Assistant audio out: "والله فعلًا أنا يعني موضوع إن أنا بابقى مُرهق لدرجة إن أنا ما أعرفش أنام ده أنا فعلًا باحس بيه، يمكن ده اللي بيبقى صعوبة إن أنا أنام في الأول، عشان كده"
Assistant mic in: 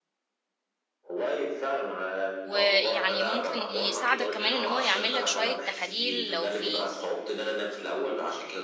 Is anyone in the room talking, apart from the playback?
Yes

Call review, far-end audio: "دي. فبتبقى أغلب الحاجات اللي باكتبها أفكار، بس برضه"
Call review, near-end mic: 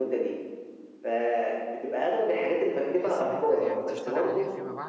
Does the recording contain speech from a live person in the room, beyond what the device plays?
Yes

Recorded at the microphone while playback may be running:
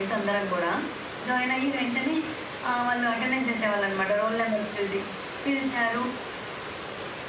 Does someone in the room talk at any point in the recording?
No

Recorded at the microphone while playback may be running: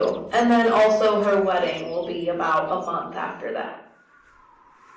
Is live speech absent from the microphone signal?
Yes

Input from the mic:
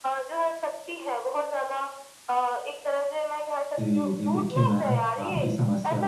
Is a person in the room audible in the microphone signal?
Yes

